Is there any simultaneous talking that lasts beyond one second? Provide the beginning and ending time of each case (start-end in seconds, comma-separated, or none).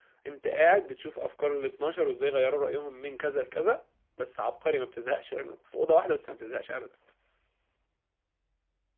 none